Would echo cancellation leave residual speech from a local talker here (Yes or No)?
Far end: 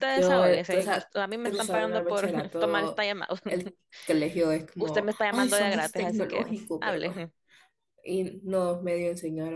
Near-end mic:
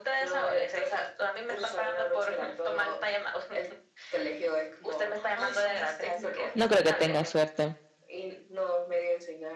Yes